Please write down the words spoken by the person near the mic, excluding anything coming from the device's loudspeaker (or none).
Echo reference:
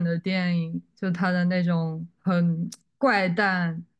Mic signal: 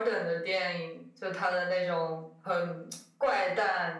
none